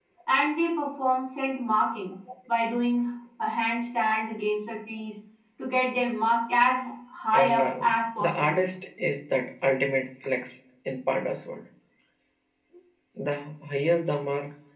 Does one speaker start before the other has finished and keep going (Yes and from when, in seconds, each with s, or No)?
Yes, from 7.3 s